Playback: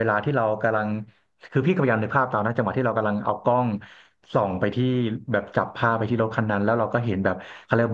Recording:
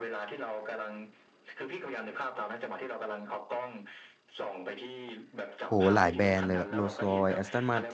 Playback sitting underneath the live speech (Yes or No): Yes